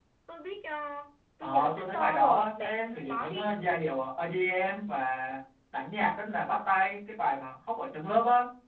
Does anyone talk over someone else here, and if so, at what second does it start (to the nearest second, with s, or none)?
1 s